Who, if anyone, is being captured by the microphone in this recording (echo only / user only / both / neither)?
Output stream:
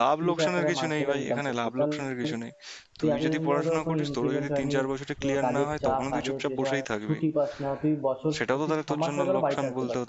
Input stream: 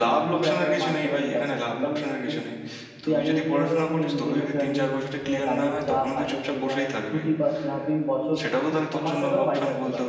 echo only